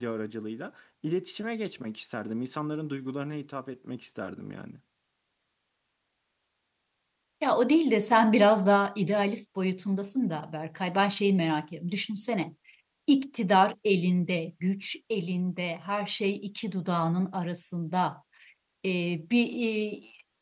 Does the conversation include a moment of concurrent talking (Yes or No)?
No